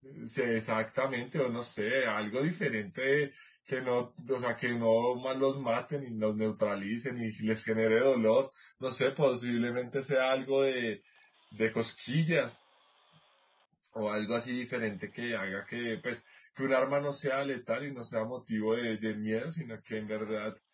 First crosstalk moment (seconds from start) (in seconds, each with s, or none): none